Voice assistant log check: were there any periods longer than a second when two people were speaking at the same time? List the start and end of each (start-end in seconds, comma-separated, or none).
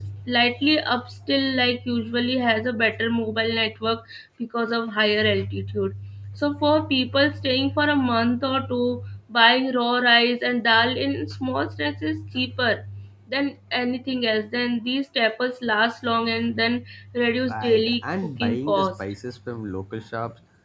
17.5-19.0